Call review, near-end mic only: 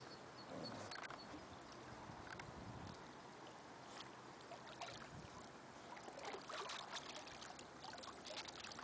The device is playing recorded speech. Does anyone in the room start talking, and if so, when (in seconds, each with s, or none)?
none